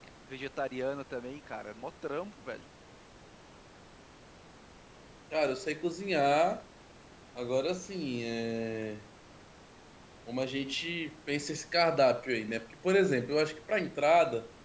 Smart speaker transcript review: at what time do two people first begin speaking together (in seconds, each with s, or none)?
none